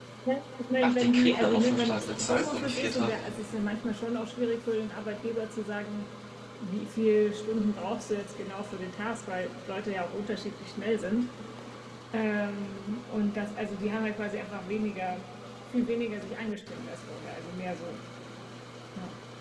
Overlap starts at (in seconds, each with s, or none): 0.8 s